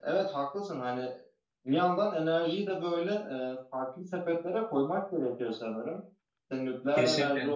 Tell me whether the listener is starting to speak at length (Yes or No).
No